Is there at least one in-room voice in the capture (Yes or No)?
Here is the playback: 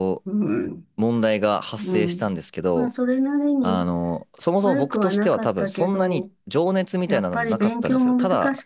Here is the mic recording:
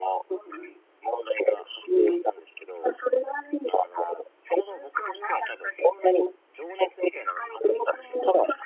No